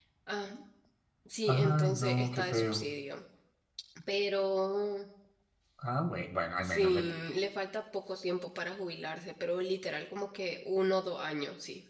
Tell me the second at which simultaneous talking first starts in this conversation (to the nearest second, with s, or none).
1 s